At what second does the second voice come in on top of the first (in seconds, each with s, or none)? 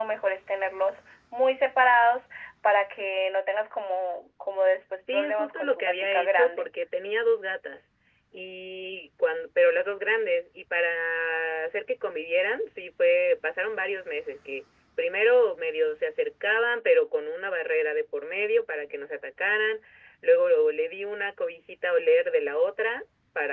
5.0 s